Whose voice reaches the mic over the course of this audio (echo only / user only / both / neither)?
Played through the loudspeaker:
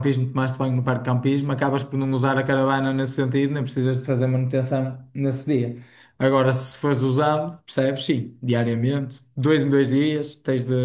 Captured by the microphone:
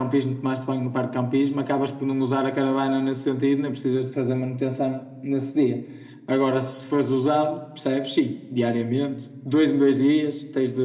echo only